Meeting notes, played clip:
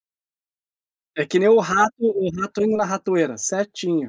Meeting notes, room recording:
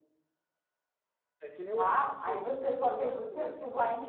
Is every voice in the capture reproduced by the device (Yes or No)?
No